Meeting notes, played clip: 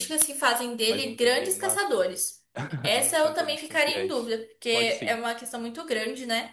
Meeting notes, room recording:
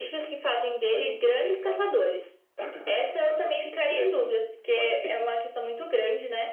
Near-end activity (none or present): none